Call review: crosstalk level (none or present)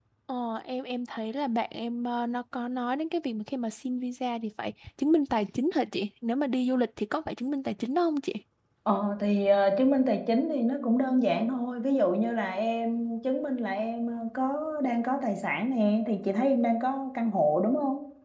none